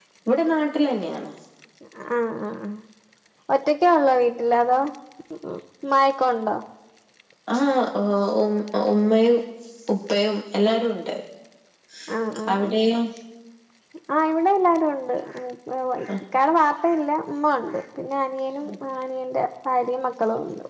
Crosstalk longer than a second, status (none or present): none